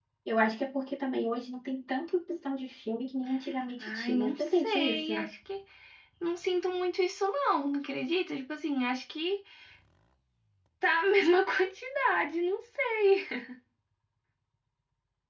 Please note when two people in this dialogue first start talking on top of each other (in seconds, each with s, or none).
3.8 s